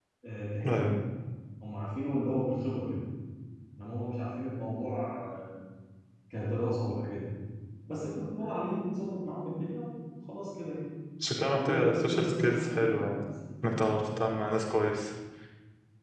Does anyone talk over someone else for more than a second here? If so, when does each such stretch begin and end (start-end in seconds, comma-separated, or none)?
11.5-13.2